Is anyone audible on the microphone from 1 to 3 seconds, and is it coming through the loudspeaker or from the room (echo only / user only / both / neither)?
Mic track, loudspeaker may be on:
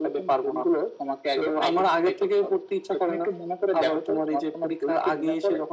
echo only